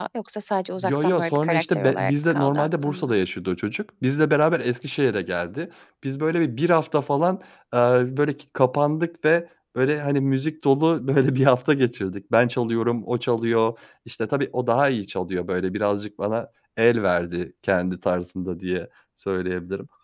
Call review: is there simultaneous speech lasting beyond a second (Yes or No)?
Yes